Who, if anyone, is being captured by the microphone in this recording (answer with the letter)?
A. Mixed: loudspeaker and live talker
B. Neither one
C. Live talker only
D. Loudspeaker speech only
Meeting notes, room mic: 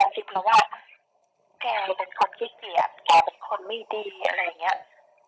D